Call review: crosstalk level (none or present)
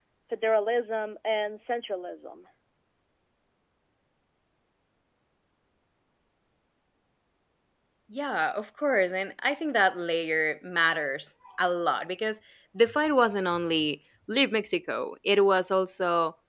none